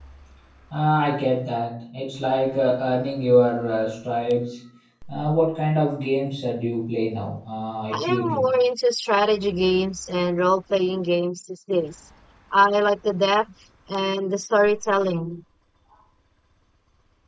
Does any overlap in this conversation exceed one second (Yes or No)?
No